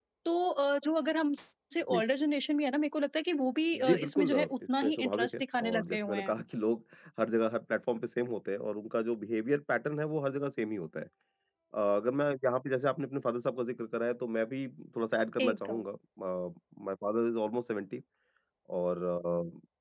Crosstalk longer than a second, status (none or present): present